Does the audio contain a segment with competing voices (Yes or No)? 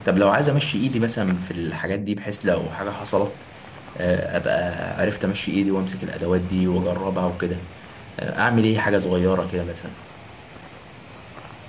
No